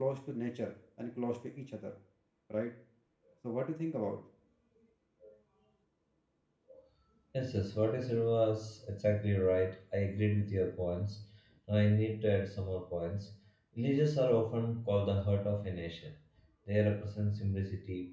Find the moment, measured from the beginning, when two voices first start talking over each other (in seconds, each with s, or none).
none